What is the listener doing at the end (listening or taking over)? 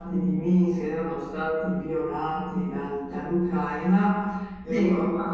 listening